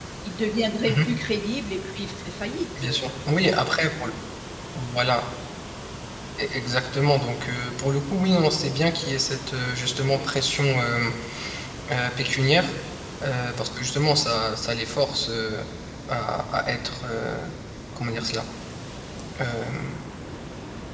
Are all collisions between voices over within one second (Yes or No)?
Yes